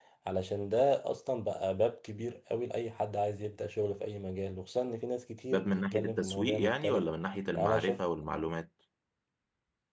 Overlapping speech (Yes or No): Yes